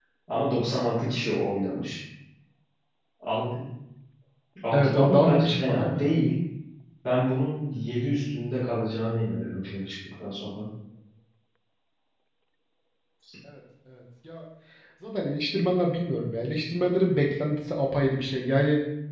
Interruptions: present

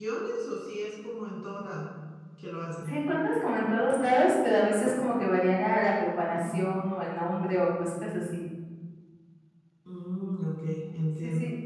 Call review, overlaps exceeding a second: none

